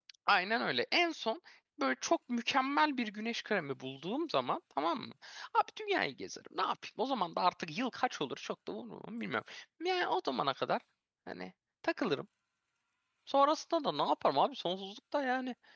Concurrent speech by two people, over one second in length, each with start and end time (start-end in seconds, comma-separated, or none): none